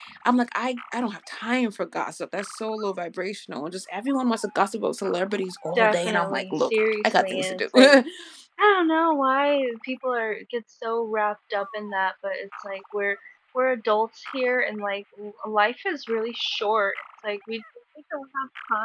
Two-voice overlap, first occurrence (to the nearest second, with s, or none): 6 s